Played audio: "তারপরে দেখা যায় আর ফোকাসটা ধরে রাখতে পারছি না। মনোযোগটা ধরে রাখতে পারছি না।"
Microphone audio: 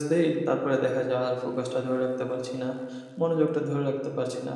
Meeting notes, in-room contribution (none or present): none